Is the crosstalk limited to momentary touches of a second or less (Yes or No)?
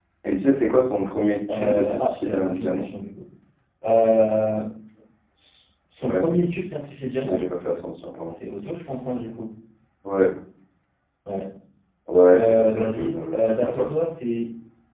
No